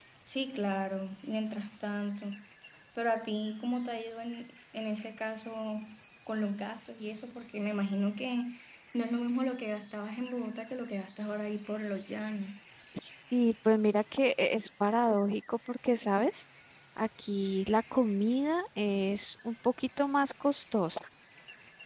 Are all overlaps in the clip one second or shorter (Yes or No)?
Yes